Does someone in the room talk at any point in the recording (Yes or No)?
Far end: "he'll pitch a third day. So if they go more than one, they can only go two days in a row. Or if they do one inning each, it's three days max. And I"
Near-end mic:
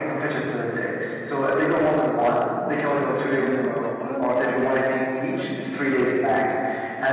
Yes